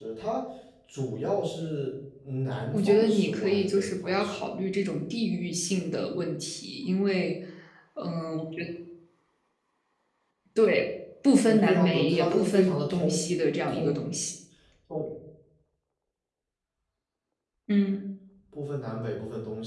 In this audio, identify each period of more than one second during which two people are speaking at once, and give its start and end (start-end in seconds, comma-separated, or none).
2.7-4.5, 11.4-13.2